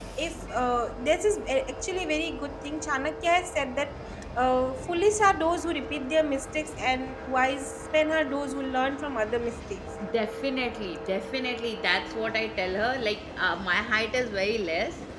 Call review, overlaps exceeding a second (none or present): none